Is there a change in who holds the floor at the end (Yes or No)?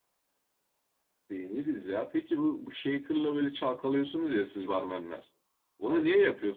No